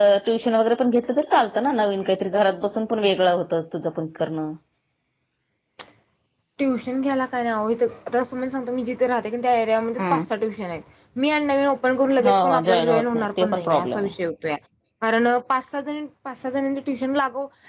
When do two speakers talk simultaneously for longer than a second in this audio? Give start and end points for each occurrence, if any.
12.3-14.1

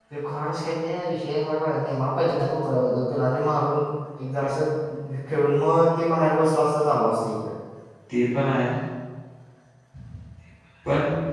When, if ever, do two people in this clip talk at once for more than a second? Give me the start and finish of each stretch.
none

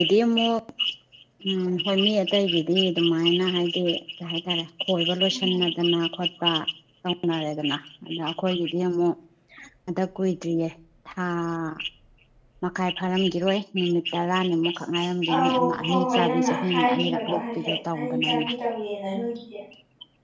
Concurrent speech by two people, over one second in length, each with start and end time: 15.4-18.4

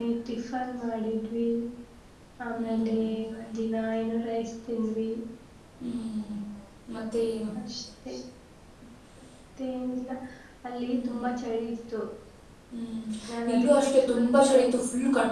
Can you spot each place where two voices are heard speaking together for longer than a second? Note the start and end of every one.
13.5-14.7

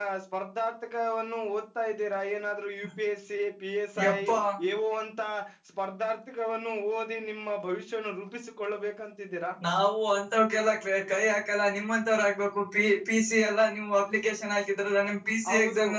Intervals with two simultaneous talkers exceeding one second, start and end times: none

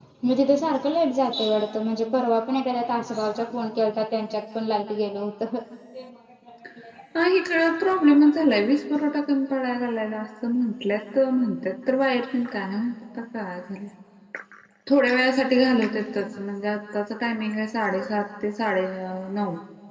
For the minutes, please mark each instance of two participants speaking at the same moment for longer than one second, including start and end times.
none

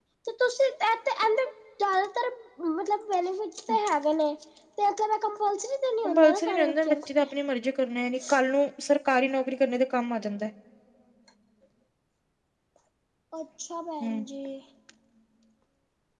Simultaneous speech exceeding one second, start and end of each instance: 6.0-7.3

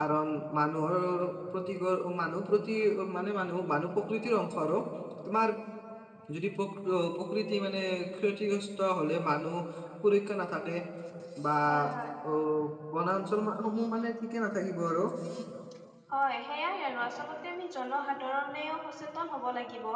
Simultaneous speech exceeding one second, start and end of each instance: none

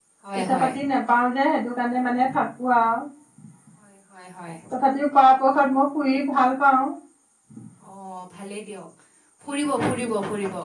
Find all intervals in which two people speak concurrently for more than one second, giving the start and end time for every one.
none

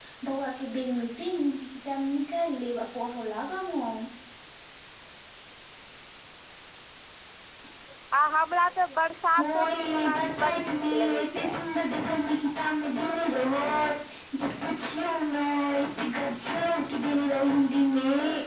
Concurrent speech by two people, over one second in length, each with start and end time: 9.4-11.6

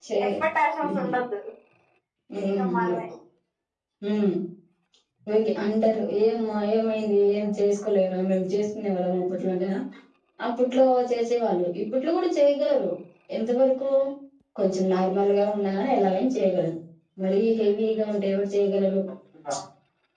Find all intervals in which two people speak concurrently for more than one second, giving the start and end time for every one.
none

